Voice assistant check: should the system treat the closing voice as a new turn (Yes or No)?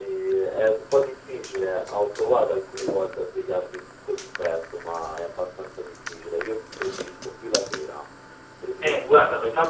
Yes